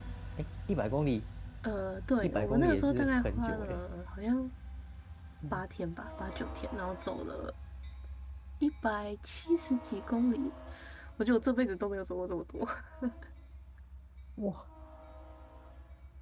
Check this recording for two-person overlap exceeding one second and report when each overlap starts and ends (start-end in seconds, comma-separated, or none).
2.2-3.8